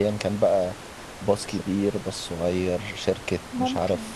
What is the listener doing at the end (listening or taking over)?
listening